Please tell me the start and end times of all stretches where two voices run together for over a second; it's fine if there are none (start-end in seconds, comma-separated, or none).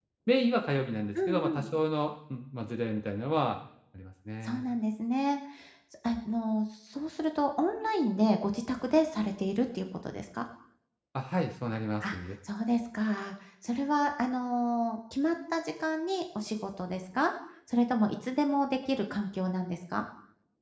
none